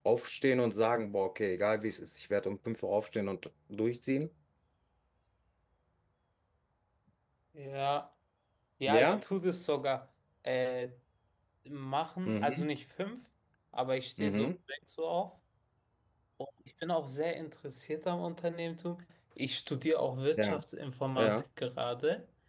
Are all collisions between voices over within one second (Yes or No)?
Yes